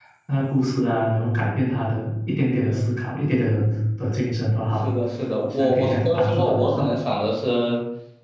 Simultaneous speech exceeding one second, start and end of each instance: 5.5-6.9

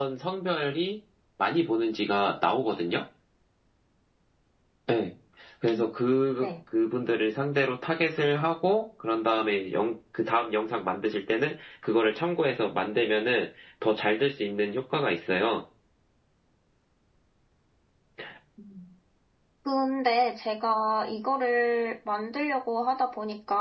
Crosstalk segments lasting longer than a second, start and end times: none

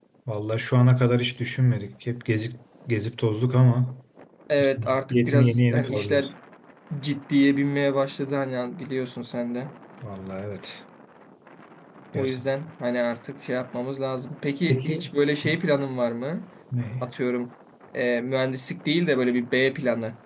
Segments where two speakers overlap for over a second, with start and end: 4.8-6.3

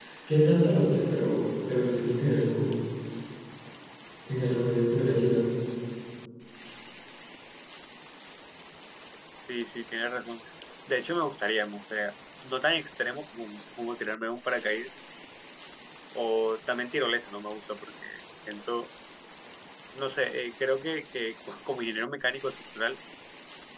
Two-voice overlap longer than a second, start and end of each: none

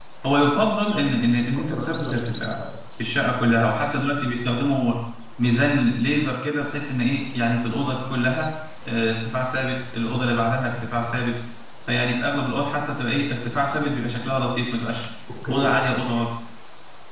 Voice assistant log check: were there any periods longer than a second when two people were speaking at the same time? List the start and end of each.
1.4-2.6

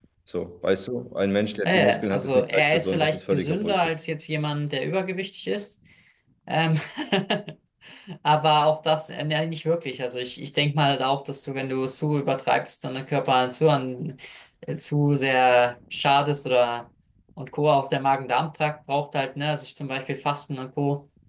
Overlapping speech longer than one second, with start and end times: 1.6-3.9

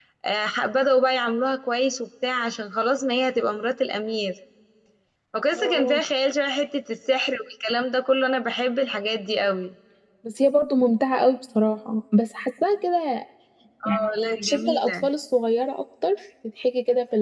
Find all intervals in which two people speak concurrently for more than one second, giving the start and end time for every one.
13.8-15.1

